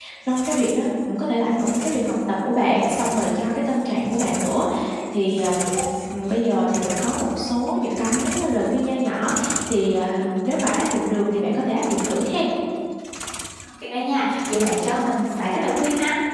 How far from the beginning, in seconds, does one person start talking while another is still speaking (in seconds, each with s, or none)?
none